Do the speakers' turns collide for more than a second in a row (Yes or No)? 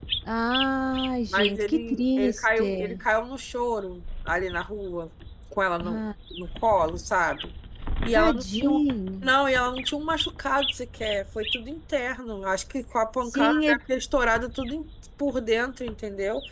Yes